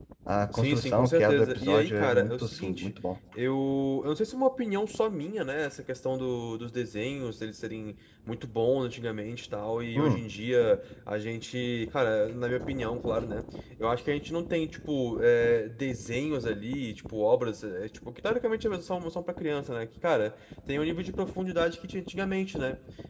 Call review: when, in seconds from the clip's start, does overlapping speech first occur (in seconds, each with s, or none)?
0.5 s